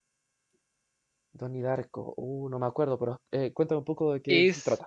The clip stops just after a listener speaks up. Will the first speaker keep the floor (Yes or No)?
No